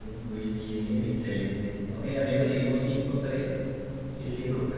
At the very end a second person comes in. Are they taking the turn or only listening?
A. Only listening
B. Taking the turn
B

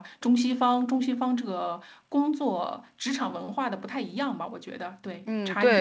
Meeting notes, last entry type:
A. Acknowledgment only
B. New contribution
B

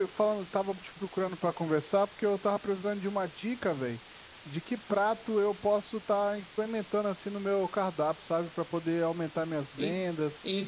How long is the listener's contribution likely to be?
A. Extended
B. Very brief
A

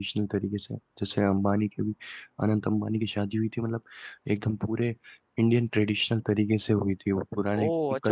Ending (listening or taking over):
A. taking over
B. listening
A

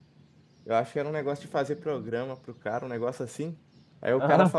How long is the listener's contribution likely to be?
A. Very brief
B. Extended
A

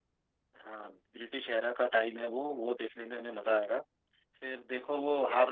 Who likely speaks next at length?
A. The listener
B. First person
B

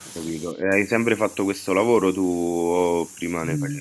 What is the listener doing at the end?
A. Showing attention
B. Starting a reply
B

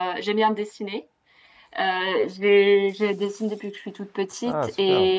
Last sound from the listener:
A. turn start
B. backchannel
B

